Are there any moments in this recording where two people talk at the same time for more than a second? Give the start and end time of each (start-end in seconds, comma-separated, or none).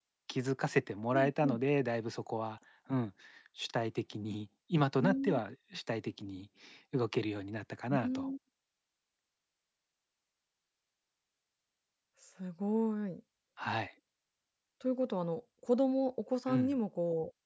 none